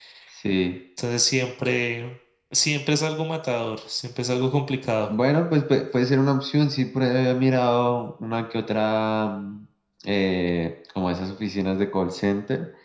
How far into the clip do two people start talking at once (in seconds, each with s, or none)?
none